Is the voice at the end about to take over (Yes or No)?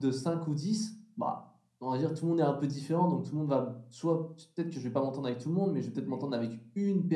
No